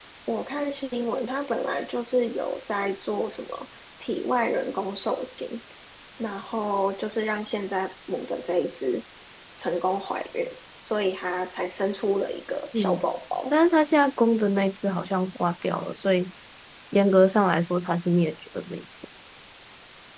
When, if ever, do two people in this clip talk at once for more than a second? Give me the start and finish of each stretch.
none

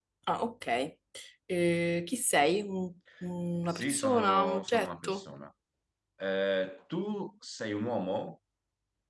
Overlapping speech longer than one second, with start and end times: 3.7-5.2

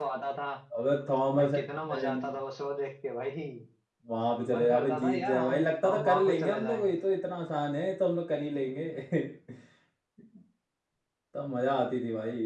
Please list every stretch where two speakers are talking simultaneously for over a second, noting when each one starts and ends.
4.5-6.9

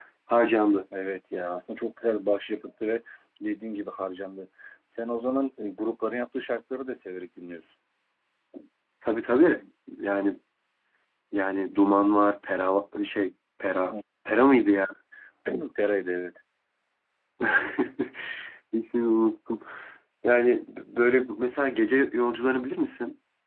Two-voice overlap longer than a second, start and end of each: none

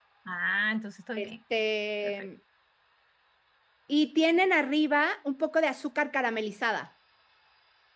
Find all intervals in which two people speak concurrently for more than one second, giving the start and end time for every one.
none

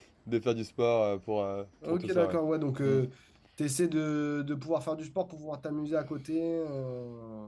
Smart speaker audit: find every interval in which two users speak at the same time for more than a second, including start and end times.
none

